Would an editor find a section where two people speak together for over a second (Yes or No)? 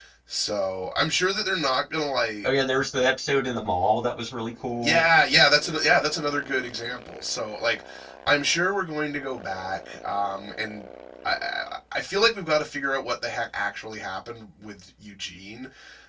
No